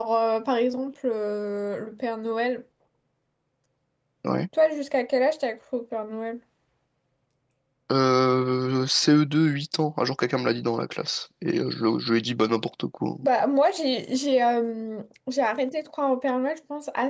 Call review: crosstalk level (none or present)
none